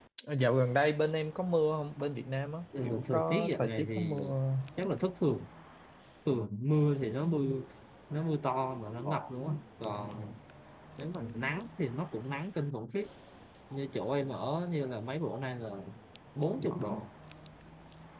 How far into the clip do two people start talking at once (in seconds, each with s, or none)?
2.7 s